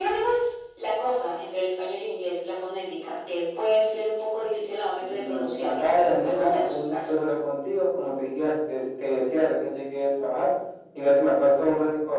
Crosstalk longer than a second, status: present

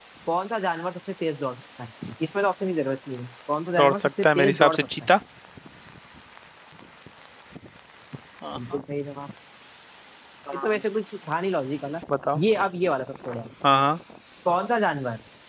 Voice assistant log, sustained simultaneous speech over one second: present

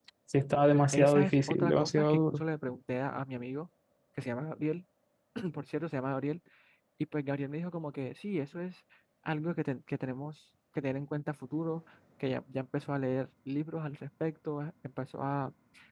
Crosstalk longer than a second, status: present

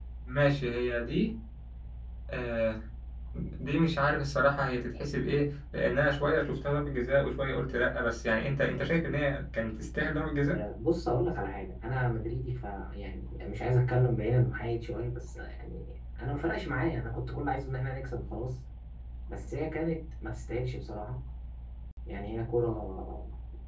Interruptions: none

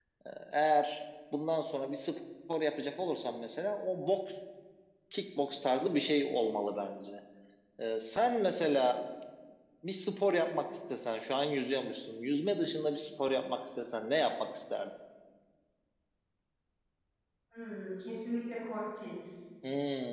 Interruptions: none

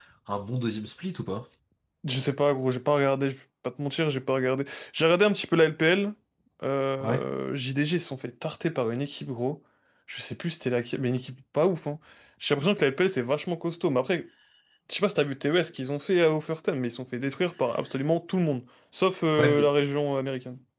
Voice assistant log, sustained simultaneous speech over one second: none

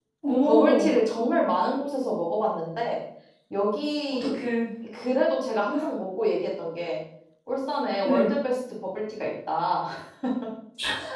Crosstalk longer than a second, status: none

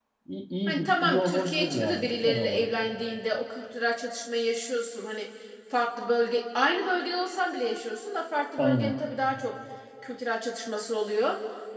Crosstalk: present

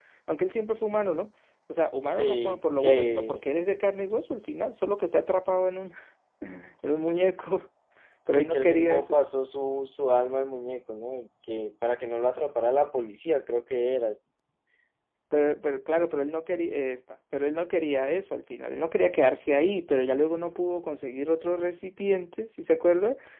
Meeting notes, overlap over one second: present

